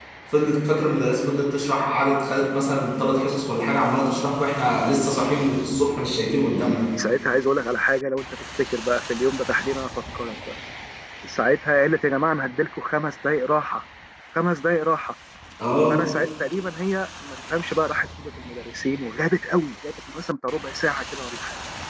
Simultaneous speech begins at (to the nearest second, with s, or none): none